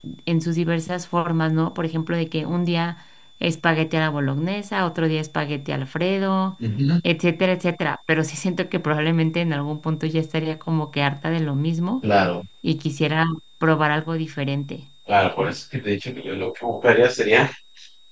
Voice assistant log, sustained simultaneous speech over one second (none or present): none